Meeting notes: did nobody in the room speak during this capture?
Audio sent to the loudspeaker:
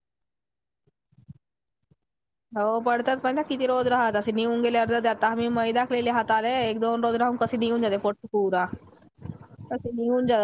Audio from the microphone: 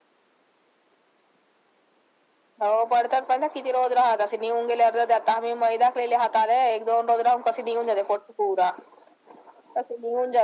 Yes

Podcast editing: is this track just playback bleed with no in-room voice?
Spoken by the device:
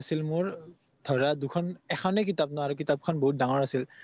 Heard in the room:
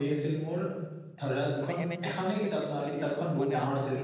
No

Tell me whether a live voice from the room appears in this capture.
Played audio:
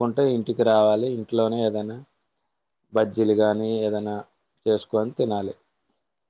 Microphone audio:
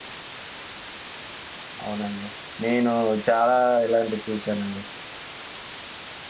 Yes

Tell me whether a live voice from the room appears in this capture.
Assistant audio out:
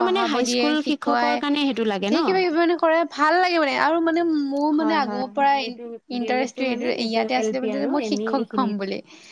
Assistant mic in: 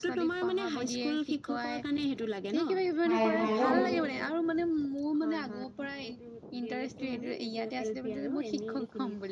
Yes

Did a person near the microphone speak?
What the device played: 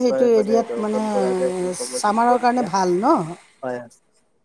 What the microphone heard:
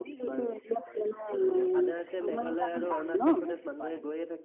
Yes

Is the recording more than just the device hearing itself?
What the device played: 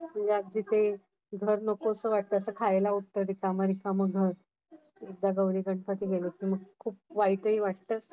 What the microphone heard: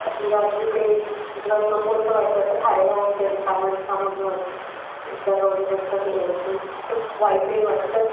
No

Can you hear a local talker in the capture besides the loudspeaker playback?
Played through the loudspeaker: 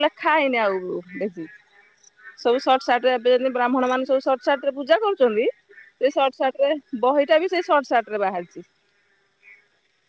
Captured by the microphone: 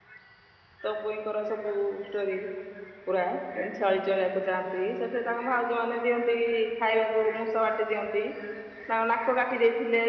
Yes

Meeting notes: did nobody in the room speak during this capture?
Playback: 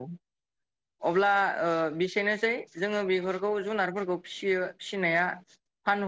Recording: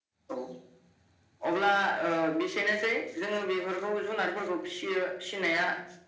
Yes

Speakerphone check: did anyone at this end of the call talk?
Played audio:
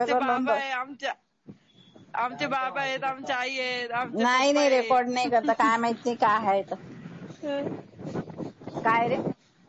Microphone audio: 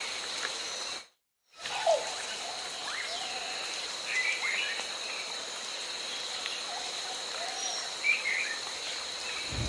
No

